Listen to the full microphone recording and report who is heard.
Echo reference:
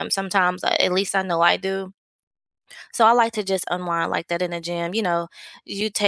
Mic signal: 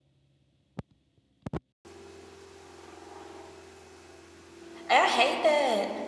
user only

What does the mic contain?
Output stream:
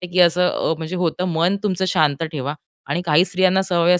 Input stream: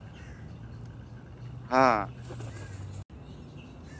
user only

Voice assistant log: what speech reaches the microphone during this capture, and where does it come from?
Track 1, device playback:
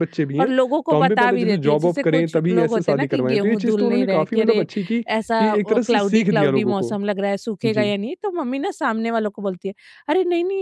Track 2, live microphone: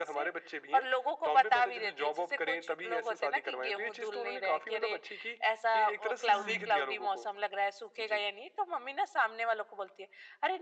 both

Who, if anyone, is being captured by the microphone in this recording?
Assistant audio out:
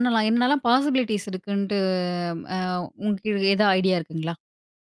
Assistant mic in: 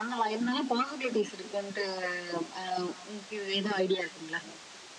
echo only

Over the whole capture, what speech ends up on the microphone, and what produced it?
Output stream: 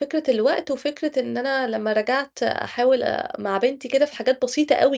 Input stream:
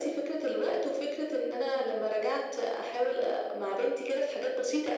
echo only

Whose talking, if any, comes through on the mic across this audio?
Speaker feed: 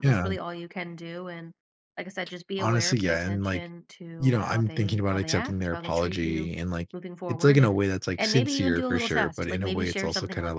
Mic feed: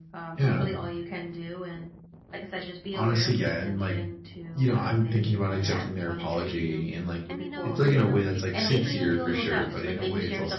both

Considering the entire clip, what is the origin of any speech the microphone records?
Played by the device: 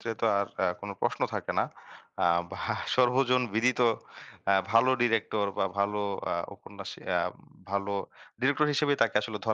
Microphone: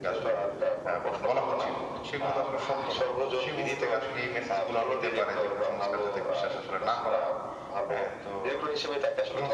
both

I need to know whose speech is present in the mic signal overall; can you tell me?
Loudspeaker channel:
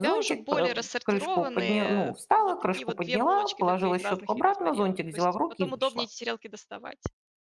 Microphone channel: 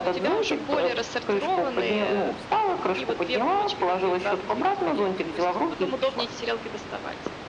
echo only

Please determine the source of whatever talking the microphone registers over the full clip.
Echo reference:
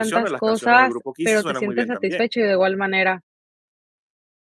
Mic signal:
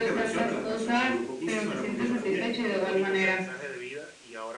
both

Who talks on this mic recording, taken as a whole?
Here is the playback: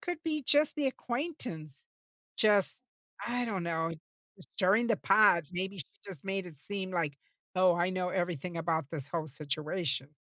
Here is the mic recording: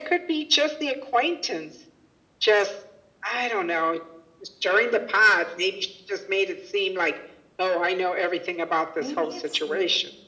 both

